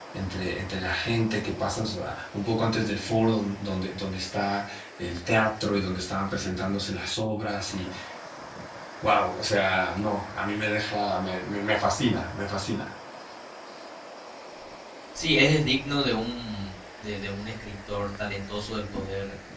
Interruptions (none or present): none